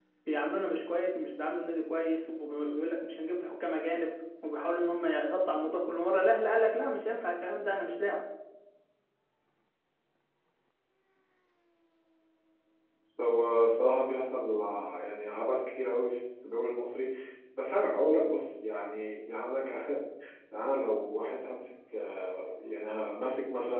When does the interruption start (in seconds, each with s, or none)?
none